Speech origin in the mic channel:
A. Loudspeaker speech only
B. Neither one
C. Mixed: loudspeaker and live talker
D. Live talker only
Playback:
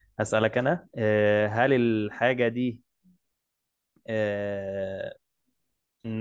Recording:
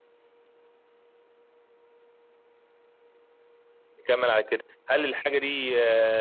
D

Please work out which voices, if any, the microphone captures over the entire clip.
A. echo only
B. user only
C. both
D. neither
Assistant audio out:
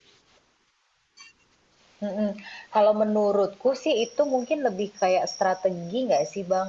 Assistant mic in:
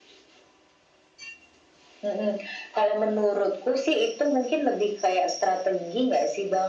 A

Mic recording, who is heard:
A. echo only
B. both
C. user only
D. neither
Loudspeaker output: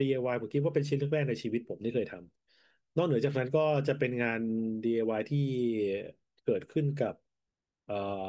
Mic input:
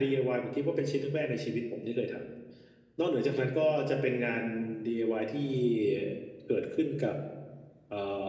A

